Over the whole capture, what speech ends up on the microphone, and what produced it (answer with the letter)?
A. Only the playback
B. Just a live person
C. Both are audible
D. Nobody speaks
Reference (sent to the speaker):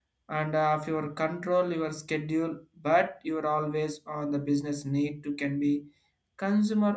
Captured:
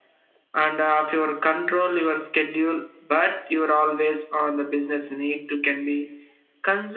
A